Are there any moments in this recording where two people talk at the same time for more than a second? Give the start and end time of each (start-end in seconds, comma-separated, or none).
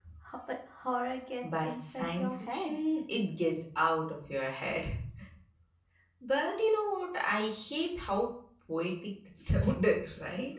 1.5-2.8